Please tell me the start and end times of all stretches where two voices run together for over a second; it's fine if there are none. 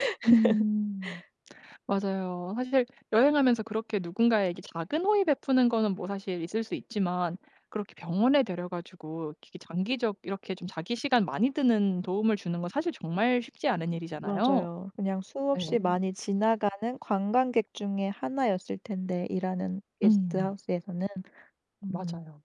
none

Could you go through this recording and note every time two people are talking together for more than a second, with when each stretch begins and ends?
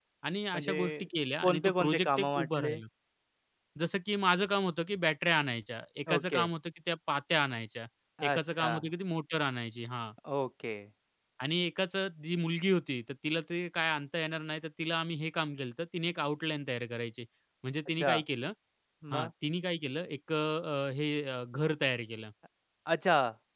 1.4-2.8

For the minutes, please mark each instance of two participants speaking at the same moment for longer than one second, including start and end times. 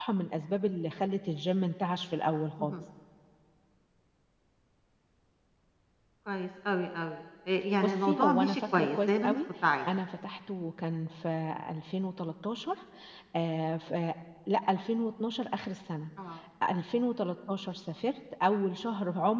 7.8-9.4

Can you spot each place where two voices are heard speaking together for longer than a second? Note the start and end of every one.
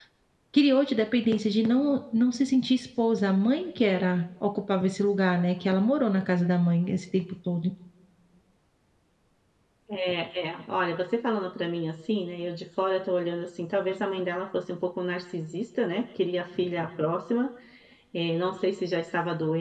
none

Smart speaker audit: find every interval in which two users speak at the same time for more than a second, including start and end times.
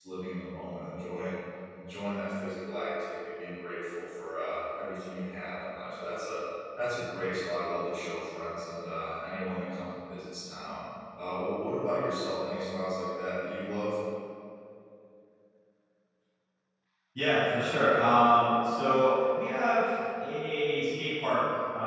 none

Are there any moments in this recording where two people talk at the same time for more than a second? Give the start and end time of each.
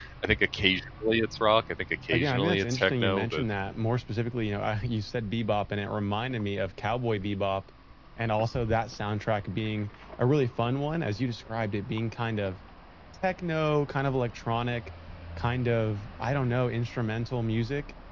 2.1-3.4

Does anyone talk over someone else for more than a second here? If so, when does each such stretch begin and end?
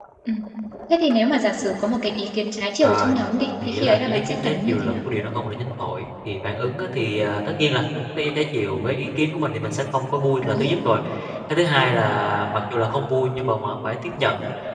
3.6-5.0

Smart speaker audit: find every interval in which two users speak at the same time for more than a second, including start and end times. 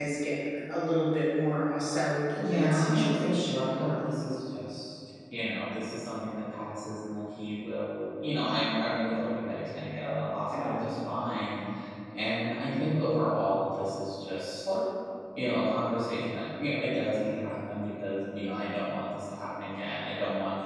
2.4-4.1

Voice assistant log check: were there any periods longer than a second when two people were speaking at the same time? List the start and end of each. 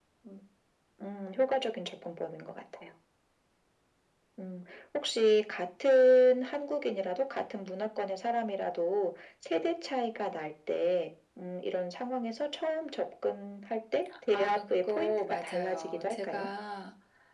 14.3-16.5

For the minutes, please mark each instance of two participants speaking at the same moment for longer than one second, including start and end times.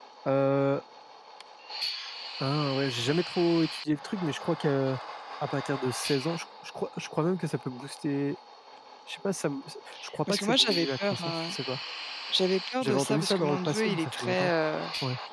10.3-11.5, 12.8-14.5

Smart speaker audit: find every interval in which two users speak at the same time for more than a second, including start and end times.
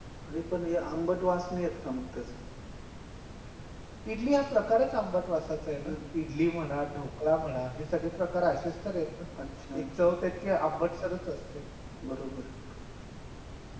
none

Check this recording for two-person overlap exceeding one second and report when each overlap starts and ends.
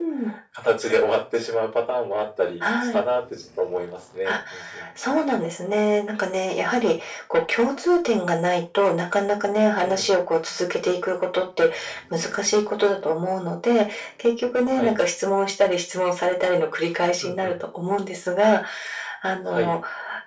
none

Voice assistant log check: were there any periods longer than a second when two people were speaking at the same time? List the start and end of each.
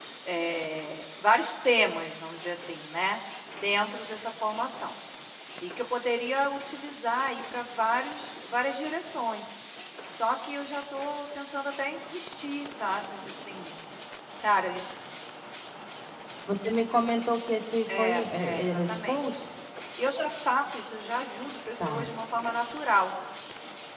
17.9-19.5

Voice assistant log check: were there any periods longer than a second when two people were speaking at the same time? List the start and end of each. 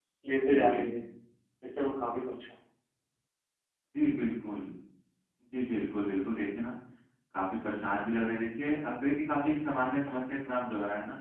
none

